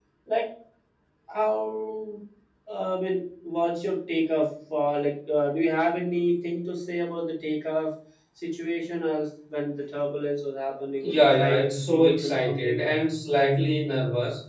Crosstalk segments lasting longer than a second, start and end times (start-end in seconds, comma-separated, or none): 11.0-12.8